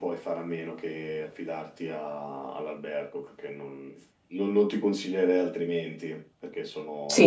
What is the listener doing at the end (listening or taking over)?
taking over